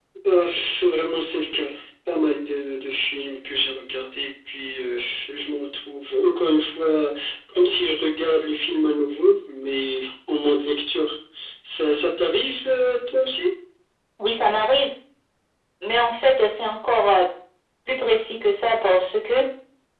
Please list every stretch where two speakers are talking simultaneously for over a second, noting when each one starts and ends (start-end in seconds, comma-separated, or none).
none